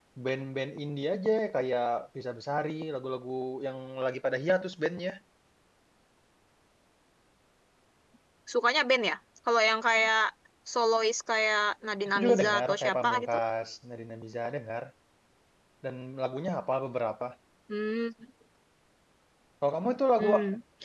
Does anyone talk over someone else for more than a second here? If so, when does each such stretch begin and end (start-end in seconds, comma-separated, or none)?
12.1-13.3